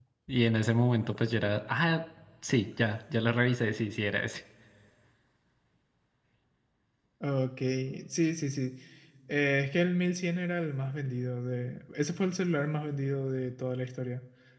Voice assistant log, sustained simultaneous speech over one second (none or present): none